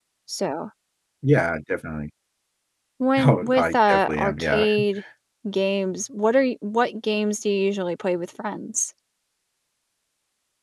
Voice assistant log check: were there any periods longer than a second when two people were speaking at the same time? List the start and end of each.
3.2-4.7

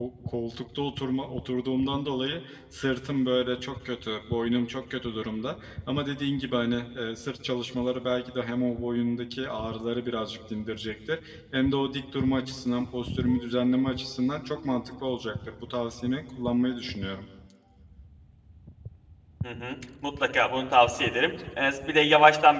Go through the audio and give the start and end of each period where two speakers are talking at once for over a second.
none

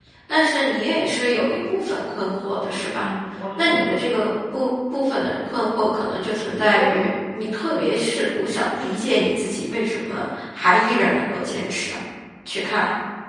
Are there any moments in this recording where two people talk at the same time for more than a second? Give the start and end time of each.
none

